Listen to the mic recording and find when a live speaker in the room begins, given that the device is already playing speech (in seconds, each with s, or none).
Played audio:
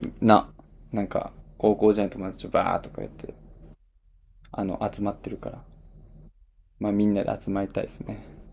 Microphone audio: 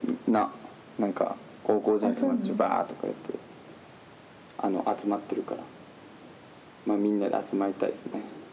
2.0 s